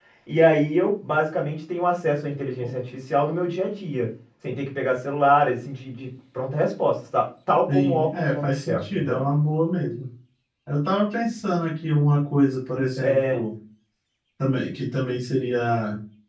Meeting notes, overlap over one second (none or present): present